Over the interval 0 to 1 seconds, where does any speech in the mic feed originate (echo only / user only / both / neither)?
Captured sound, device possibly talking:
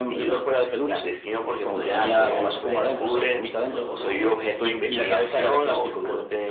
echo only